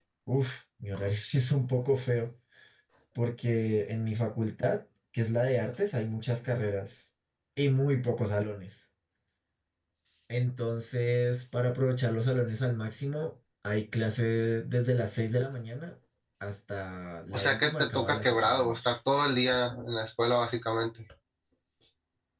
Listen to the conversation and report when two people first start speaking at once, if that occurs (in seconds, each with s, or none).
17.3 s